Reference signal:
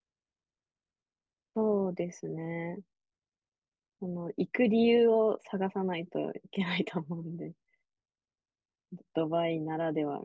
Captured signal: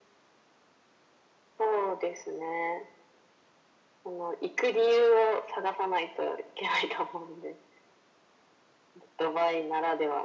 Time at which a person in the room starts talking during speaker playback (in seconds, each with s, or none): none